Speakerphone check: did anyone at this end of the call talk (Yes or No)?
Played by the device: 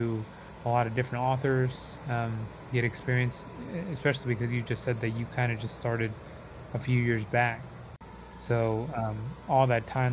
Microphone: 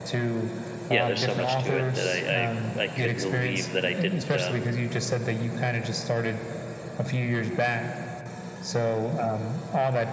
Yes